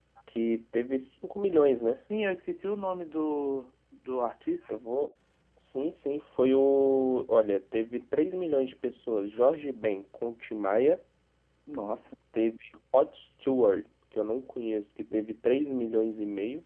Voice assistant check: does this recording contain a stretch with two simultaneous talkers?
No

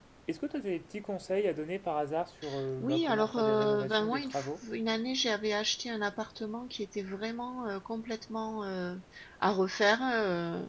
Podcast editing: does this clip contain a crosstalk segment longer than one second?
Yes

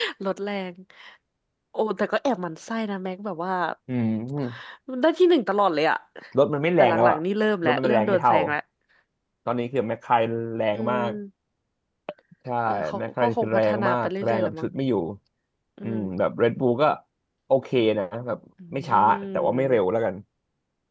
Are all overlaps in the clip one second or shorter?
No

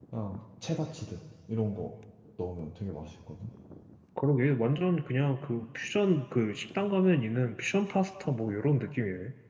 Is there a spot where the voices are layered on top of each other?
No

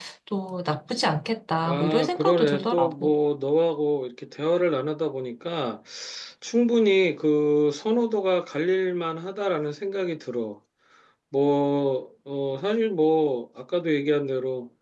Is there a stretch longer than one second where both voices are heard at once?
Yes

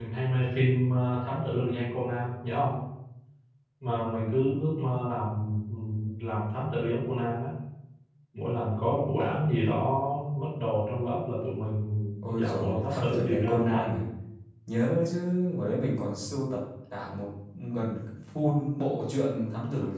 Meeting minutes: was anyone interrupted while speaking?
Yes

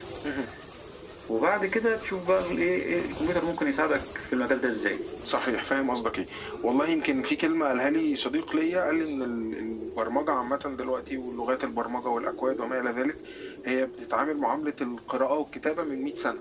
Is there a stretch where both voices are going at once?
No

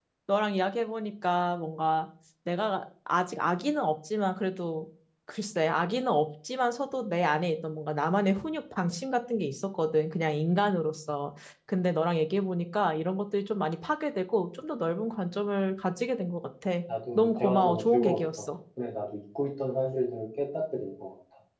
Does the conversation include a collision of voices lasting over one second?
Yes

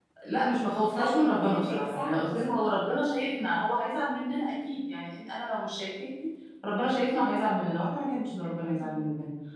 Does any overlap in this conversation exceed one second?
Yes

